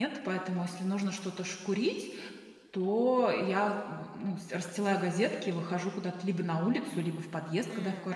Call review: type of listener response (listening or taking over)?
listening